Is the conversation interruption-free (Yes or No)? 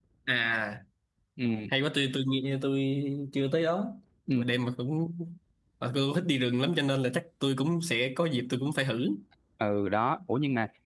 Yes